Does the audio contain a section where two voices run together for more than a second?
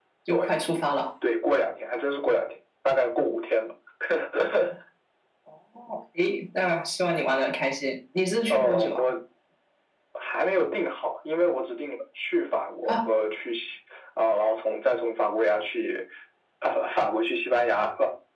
No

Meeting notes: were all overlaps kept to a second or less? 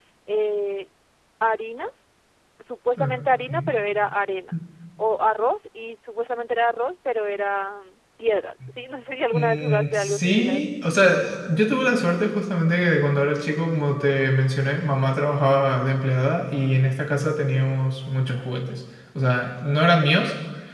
No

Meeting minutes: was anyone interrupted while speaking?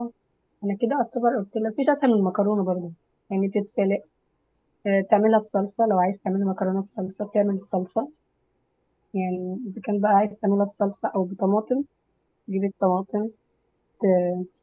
No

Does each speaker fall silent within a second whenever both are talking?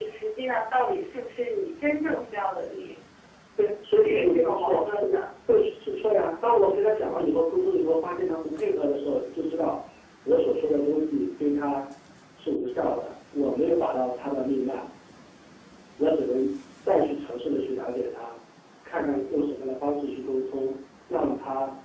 No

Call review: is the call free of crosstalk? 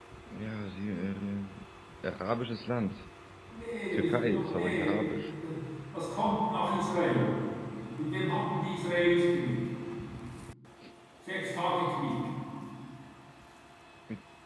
No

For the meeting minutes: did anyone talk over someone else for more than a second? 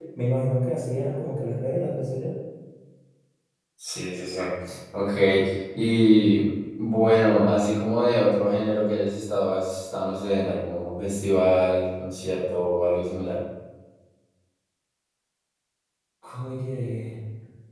No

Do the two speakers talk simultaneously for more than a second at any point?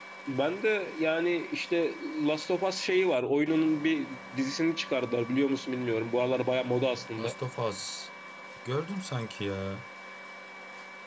No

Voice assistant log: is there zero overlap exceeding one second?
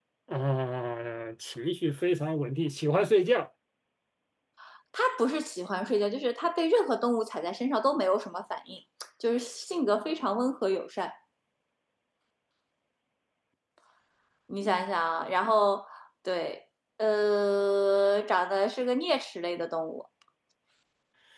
Yes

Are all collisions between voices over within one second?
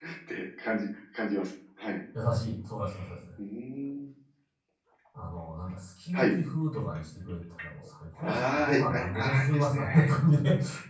No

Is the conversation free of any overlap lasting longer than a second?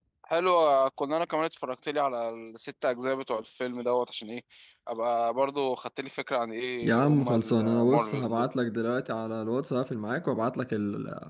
No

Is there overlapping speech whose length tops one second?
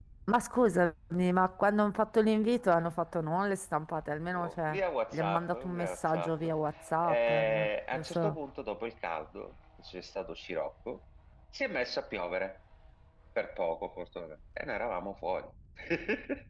Yes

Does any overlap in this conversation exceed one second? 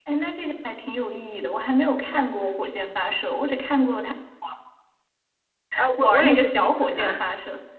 Yes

